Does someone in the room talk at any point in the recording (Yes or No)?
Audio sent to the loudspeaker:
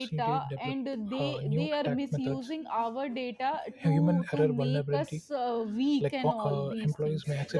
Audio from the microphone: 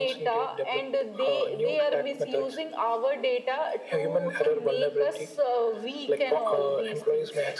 No